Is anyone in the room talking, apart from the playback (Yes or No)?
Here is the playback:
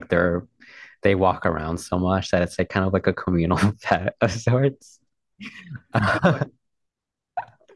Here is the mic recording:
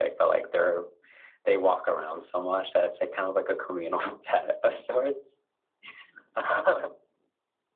No